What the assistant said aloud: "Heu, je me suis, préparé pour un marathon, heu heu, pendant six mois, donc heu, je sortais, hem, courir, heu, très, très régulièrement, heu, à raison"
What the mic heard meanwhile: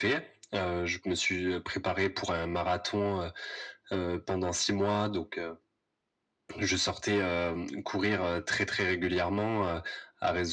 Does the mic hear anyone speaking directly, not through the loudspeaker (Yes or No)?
No